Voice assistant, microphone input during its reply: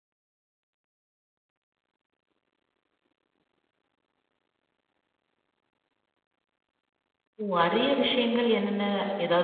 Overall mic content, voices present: user only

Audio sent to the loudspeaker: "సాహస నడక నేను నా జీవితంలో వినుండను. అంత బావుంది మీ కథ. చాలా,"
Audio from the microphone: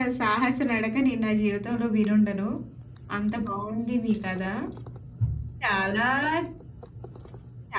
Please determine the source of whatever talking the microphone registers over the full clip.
echo only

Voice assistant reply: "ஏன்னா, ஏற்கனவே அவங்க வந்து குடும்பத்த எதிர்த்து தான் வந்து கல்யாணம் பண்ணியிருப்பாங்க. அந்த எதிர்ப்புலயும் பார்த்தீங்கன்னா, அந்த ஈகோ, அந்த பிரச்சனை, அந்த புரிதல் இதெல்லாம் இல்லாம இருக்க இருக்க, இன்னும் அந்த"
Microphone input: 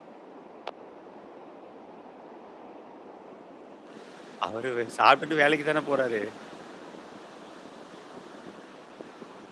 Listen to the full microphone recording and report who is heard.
user only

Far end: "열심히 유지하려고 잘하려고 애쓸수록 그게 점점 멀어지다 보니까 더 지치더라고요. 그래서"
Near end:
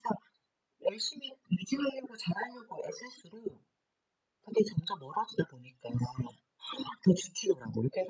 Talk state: echo only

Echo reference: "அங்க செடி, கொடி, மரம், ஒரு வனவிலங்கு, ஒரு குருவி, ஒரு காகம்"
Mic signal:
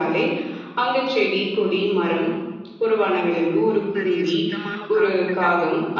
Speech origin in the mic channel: both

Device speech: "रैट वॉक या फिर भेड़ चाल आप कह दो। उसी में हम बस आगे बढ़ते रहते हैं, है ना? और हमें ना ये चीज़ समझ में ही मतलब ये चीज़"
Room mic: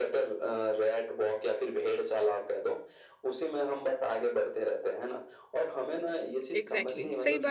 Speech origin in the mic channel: both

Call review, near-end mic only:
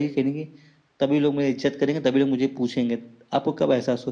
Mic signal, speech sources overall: echo only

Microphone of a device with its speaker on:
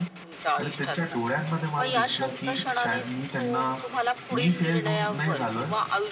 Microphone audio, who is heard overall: both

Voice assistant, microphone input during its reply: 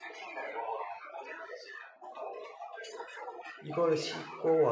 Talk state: both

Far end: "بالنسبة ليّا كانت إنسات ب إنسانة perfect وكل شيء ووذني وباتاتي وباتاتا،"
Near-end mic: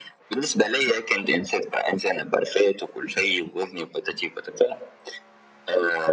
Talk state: echo only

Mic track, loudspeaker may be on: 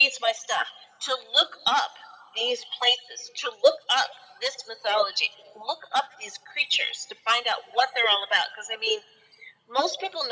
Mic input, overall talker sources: echo only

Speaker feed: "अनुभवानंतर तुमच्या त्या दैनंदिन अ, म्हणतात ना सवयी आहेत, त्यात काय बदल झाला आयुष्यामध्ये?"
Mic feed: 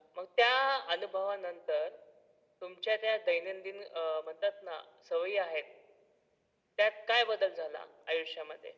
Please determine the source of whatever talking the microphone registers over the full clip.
echo only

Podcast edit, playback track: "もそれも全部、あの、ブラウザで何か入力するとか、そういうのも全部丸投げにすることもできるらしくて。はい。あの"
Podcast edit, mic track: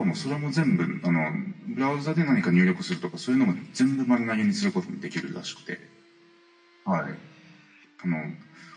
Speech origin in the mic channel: echo only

